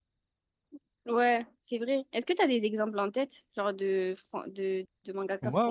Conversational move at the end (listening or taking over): taking over